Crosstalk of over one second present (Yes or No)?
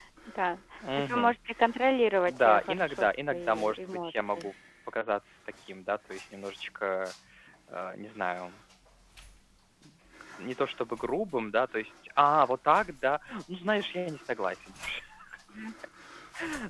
Yes